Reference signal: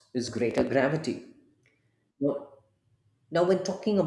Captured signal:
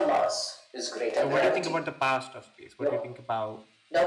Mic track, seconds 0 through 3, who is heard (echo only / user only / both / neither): both